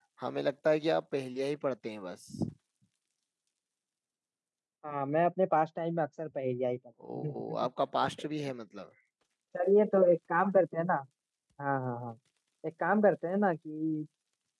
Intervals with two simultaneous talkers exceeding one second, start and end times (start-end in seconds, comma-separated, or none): none